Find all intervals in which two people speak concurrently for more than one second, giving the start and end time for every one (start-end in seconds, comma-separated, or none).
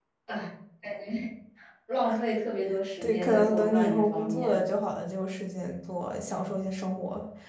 3.0-4.6